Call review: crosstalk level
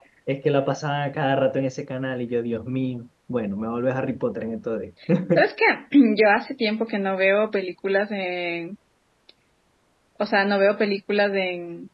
none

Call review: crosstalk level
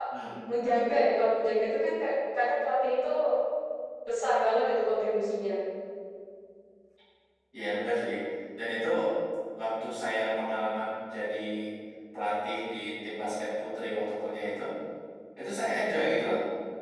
none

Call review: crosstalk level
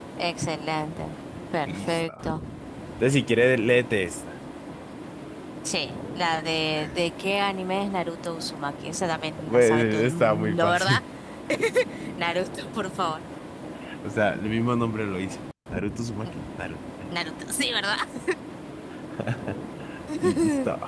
present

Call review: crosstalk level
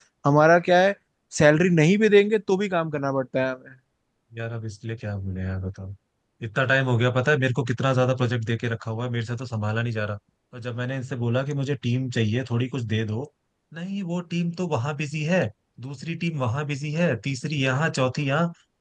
none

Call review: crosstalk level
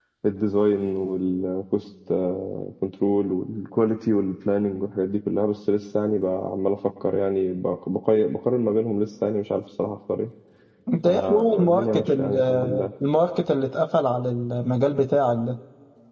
present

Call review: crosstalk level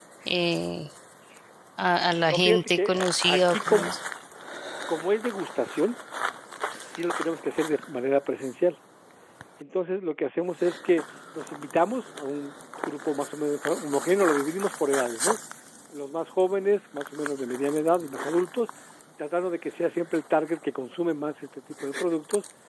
present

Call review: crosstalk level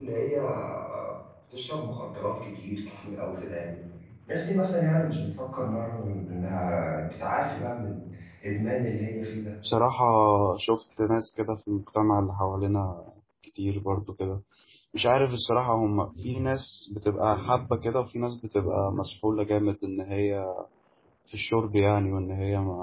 none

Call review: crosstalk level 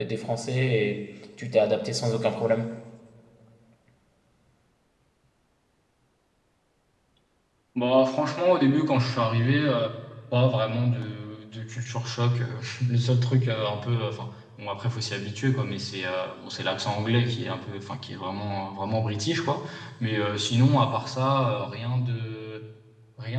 none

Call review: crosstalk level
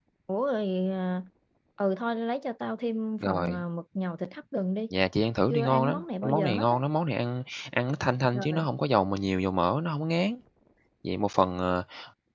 present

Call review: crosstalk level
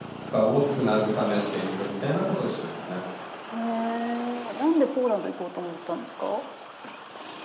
none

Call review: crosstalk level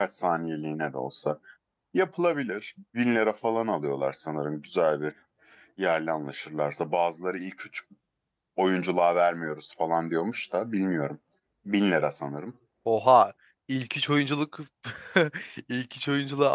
none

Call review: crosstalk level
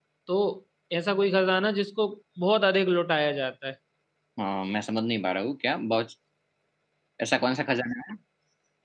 none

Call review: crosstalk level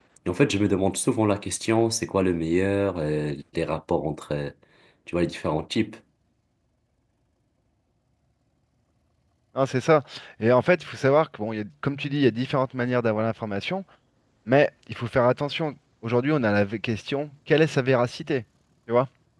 none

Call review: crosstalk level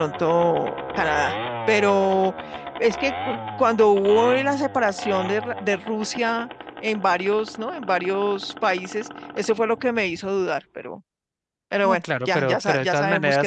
present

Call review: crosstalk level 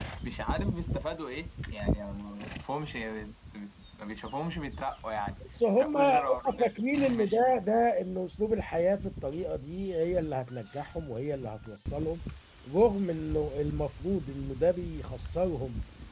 present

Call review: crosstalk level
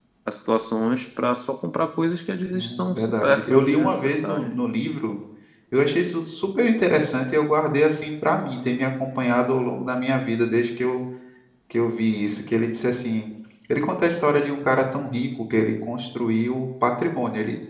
present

